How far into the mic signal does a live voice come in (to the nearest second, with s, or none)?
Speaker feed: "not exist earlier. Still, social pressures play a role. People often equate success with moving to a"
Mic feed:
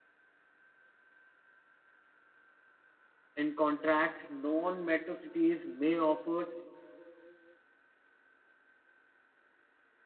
3 s